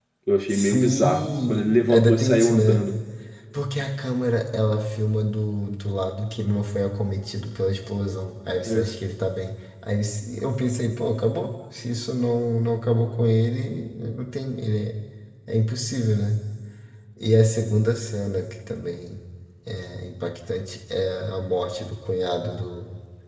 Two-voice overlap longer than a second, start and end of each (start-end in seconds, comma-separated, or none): 0.5-2.9